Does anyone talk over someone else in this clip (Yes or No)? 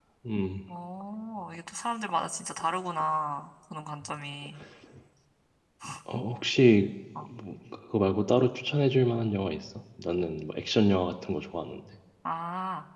No